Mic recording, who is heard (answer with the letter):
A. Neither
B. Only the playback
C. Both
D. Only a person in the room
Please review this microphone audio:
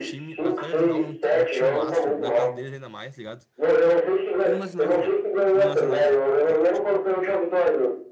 C